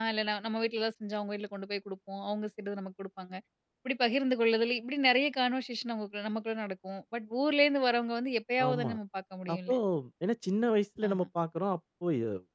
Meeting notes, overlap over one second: none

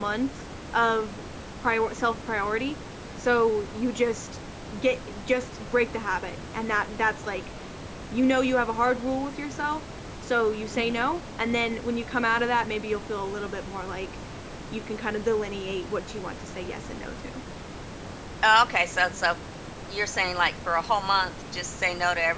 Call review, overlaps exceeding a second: none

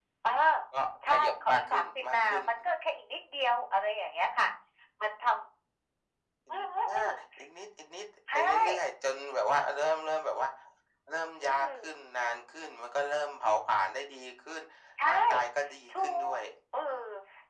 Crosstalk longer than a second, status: present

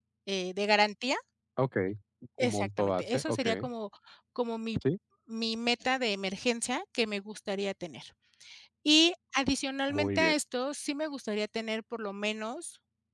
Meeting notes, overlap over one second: present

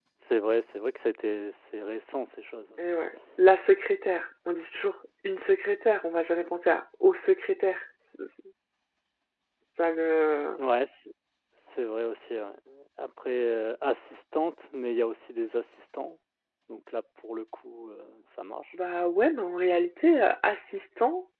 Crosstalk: none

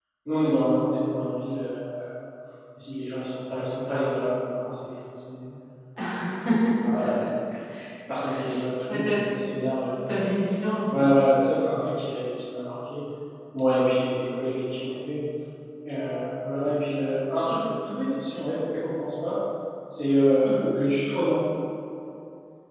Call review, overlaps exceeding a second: none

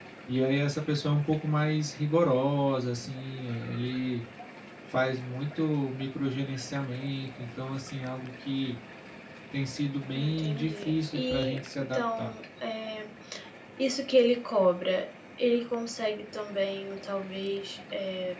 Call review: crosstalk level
present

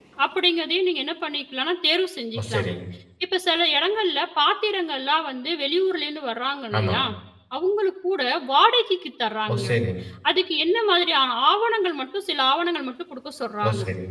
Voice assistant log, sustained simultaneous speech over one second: none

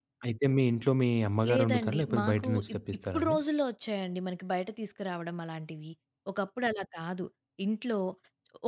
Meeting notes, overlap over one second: present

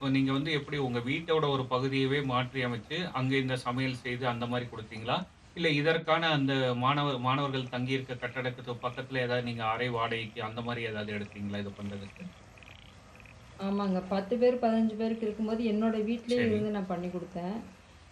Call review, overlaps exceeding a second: none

